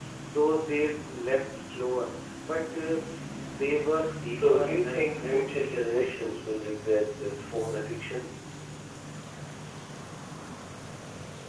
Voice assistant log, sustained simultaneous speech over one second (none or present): present